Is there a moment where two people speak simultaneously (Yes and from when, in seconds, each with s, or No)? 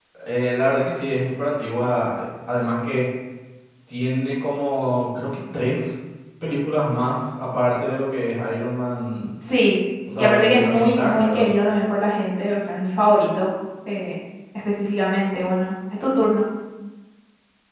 Yes, from 10.2 s